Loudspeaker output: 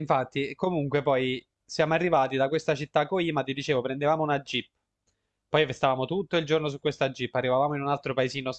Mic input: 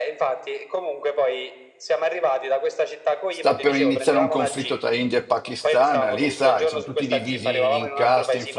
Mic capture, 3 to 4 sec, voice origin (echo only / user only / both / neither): both